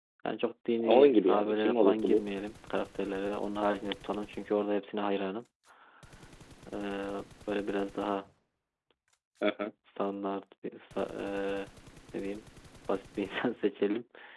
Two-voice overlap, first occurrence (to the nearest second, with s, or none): 1 s